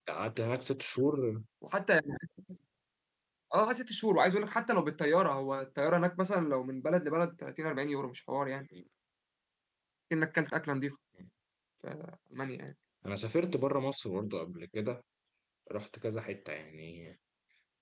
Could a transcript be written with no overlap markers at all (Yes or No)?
Yes